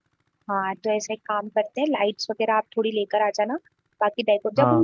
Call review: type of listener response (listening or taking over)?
listening